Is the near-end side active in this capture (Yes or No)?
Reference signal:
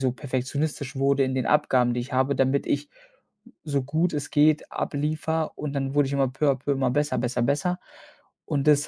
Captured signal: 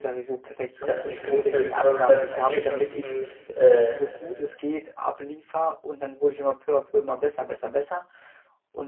Yes